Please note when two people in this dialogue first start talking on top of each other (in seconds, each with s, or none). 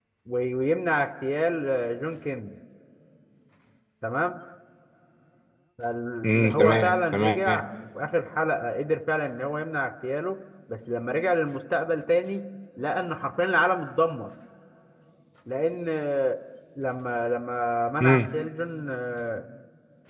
6.2 s